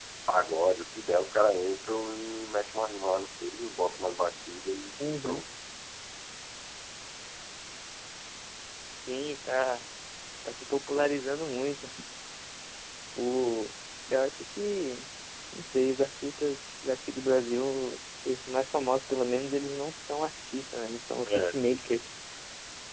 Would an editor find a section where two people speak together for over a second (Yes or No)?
No